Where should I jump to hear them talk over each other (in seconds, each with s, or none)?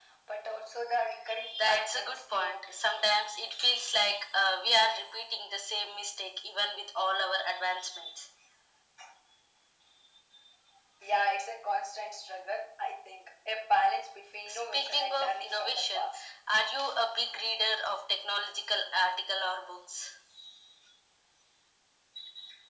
1.7 s